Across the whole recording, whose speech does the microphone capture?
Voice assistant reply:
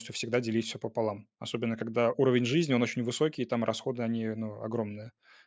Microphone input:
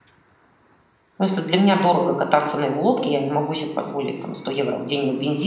user only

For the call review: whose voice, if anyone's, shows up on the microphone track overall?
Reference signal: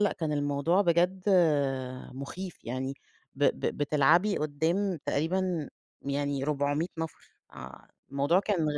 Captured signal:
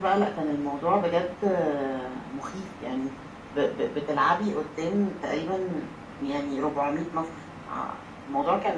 echo only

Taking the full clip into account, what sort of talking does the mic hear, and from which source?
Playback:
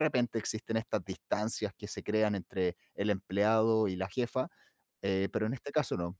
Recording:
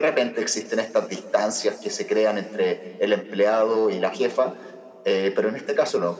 echo only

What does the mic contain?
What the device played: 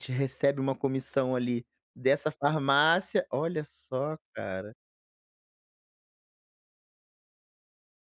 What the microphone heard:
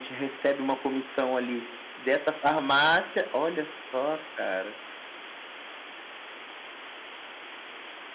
echo only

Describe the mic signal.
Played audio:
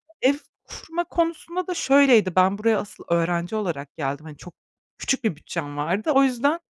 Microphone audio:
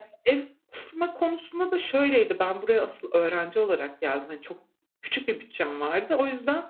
echo only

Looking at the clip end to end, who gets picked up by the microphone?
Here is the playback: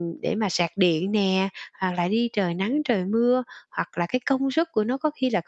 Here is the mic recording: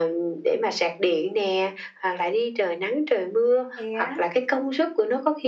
both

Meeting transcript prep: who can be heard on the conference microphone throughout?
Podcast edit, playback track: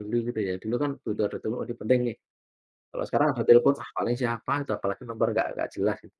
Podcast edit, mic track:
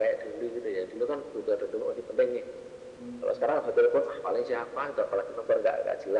both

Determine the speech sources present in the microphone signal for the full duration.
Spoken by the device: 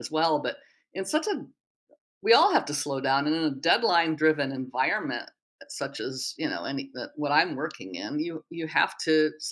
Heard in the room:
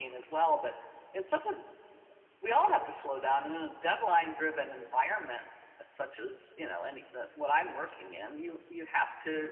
echo only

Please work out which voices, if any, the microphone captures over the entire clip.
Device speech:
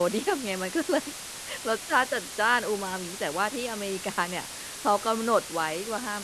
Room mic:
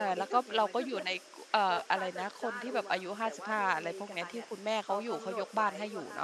both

